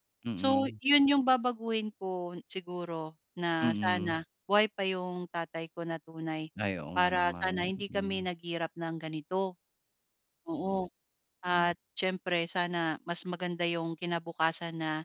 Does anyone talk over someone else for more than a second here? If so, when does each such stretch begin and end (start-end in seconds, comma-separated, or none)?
7.0-8.3